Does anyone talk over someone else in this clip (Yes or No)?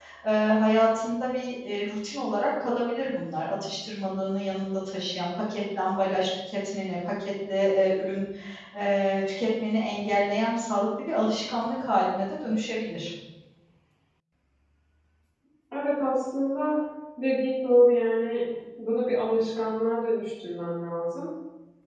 No